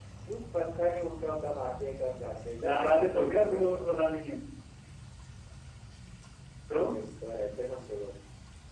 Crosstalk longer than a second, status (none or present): present